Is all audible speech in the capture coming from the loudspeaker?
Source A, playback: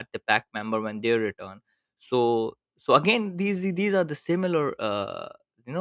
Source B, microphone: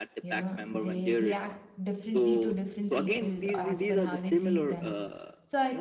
No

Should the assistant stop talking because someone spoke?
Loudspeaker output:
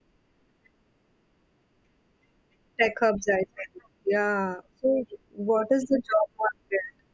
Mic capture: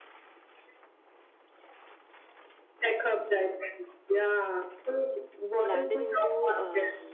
Yes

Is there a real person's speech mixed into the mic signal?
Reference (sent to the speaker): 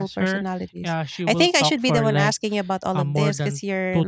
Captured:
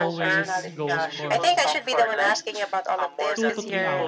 Yes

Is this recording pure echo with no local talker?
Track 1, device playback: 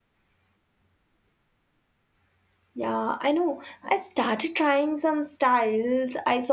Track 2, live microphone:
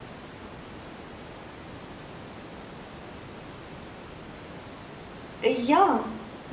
No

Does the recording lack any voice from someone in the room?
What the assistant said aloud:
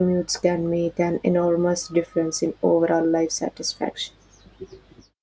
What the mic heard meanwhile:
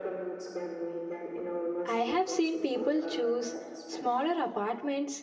No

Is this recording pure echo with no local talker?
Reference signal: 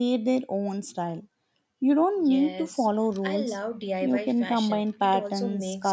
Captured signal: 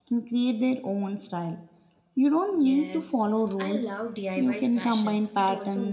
Yes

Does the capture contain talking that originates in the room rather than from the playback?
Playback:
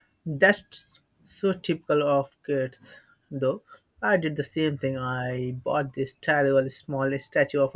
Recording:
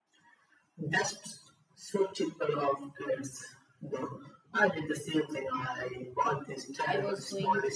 Yes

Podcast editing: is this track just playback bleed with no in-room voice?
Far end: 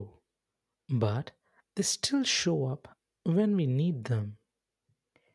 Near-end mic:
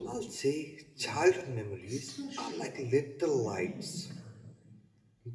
No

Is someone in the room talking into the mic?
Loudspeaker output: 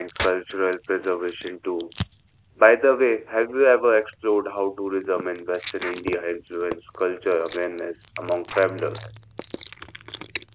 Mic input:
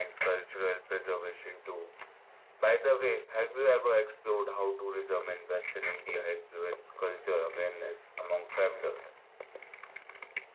No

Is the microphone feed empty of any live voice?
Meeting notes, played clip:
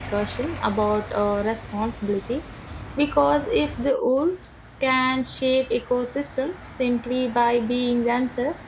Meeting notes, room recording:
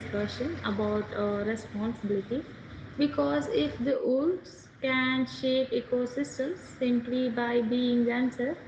Yes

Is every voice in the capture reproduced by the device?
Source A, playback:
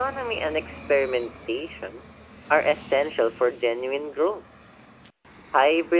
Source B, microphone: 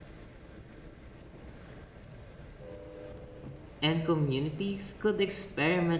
No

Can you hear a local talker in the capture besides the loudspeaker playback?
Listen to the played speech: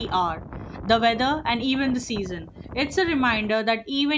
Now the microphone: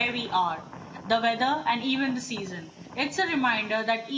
No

